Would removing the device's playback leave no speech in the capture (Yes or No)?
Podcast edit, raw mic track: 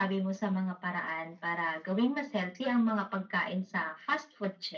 Yes